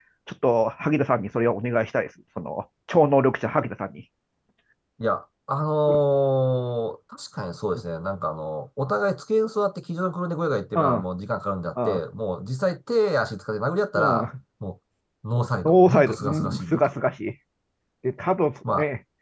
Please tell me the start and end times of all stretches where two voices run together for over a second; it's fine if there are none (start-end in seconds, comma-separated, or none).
15.7-16.9